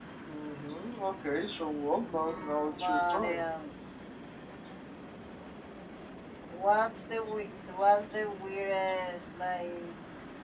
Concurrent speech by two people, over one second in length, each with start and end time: 2.1-3.5

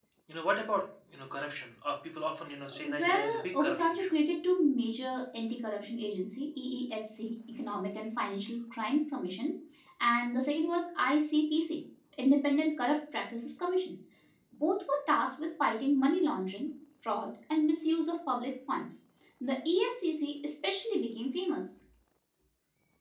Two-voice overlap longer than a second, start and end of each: 2.8-4.1

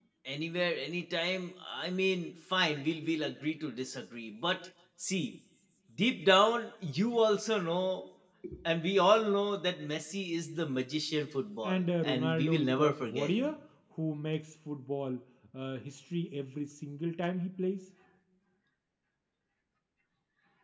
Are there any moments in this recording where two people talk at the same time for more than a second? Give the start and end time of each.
11.6-13.5

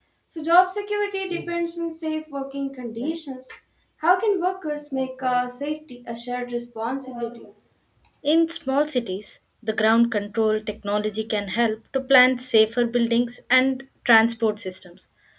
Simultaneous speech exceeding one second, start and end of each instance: none

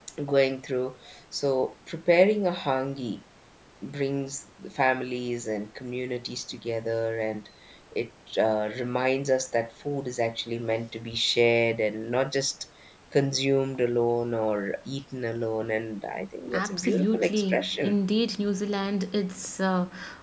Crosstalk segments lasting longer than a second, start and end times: 16.5-18.0

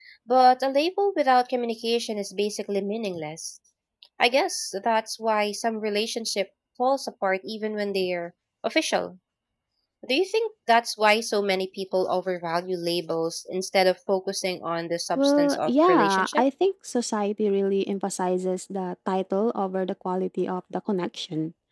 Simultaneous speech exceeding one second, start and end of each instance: 15.2-16.4

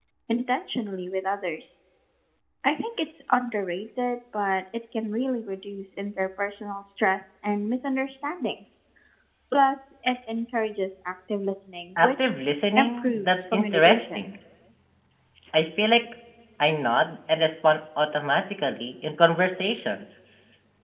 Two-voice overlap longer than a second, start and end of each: 12.8-14.3

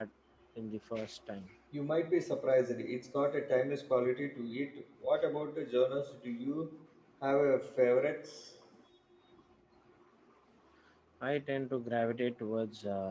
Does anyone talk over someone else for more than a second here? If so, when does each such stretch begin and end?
none

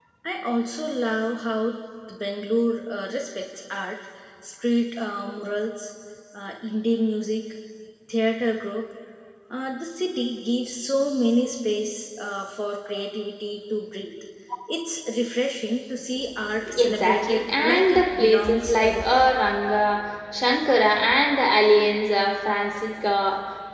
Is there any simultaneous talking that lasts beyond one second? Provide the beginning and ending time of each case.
16.8-19.2

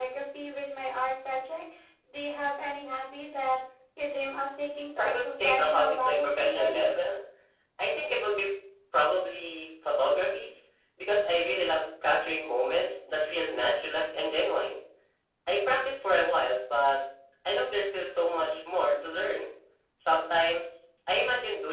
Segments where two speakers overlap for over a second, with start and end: 5.0-6.8

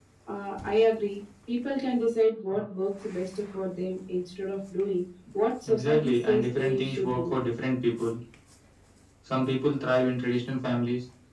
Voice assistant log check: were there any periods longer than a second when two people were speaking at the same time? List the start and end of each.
5.7-7.3

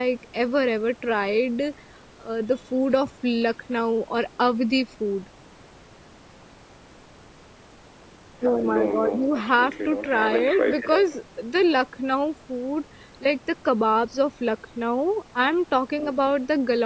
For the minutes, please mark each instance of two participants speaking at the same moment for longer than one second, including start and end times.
8.8-11.1

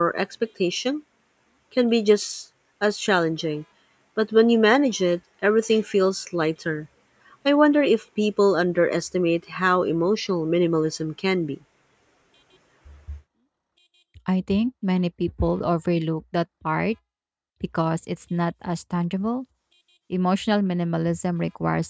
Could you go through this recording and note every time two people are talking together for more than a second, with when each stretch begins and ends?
none

